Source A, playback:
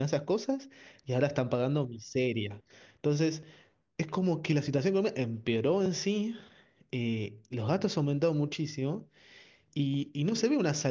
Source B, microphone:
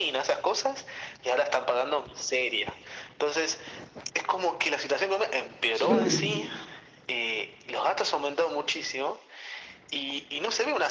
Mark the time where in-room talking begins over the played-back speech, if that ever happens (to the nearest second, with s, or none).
6 s